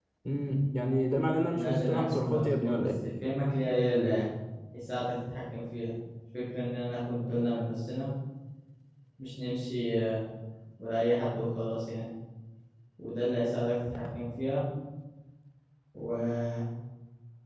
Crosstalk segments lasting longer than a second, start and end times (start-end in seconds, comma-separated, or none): 1.5-2.9